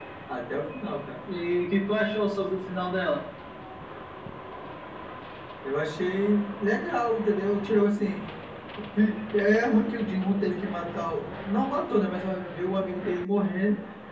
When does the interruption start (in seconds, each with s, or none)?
none